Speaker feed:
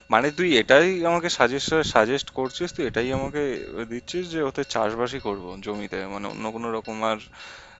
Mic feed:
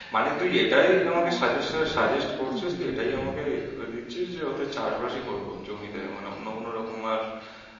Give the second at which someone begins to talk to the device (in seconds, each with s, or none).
1.1 s